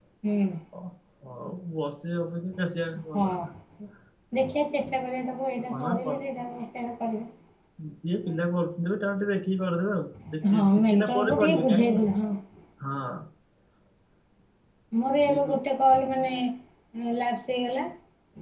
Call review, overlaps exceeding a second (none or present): present